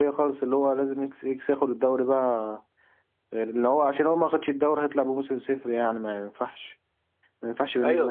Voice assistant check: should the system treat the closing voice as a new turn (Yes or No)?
Yes